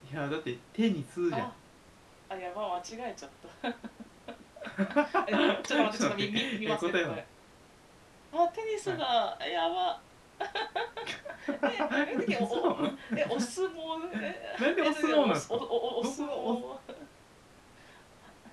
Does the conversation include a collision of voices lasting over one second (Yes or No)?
Yes